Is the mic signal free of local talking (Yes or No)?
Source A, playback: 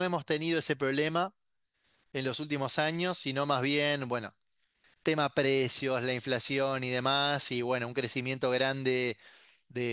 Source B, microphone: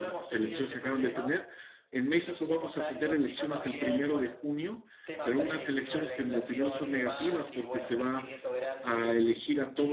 No